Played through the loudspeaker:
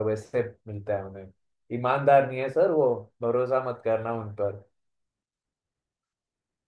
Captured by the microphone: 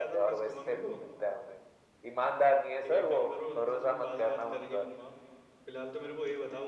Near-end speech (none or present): present